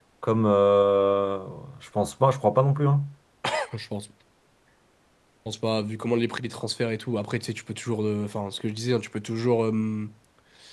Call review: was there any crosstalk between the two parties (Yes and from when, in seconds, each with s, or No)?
No